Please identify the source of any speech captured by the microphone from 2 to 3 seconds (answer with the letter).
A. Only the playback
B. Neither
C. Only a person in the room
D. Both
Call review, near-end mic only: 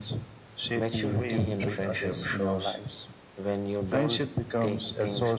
A